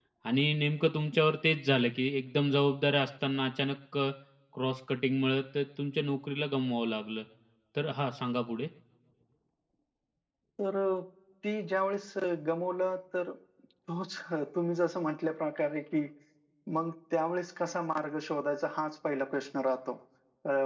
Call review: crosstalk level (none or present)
none